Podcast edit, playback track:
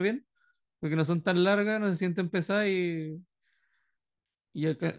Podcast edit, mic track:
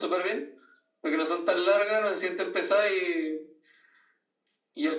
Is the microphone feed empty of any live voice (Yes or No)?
Yes